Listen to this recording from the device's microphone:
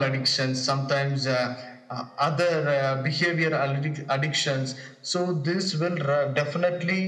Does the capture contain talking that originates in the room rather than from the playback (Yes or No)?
No